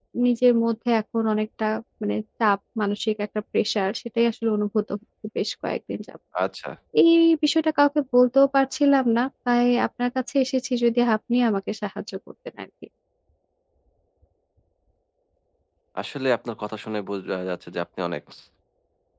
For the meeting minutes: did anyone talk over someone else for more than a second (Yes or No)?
No